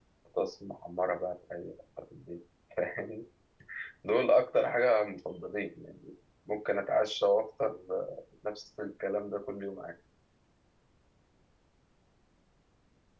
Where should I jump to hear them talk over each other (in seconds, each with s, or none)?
none